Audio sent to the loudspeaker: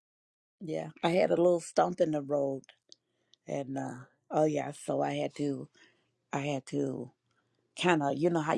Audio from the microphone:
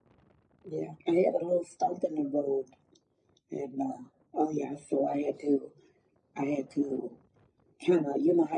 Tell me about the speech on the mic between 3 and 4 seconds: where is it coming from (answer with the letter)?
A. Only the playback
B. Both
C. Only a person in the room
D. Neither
A